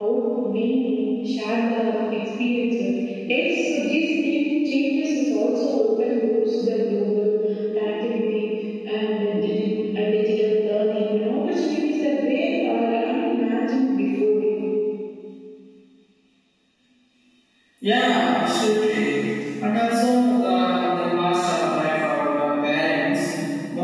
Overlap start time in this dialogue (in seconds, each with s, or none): none